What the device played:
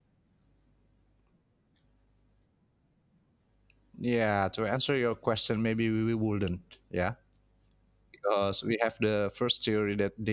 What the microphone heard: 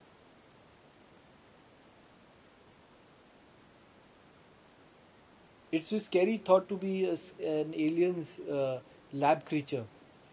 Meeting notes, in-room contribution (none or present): present